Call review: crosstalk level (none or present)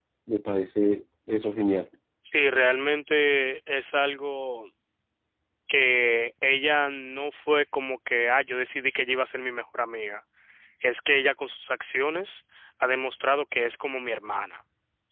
none